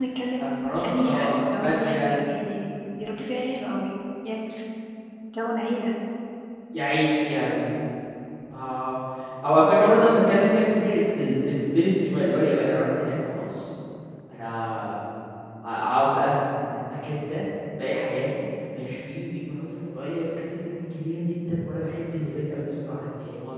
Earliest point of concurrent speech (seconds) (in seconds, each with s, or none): 0.8 s